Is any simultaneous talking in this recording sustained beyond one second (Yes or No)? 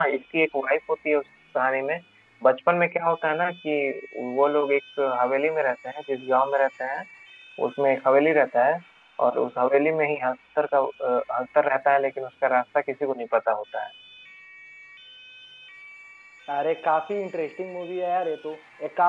No